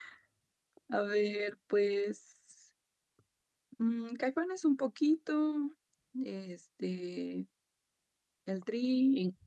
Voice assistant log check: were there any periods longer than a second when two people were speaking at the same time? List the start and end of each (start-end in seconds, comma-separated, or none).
none